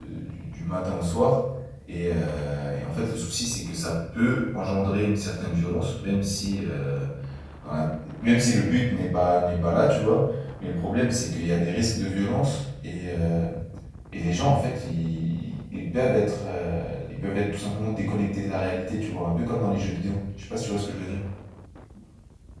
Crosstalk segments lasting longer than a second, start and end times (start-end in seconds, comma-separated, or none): none